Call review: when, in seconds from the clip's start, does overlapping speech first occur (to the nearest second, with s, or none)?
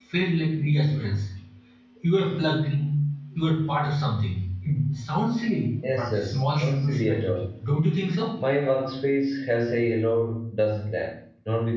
6 s